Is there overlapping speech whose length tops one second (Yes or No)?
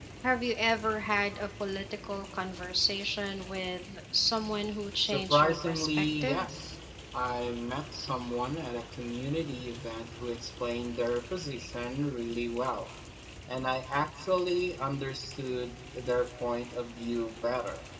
Yes